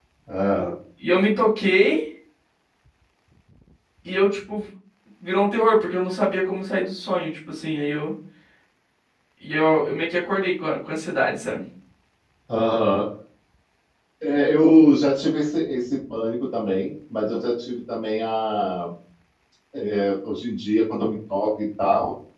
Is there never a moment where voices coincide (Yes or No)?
Yes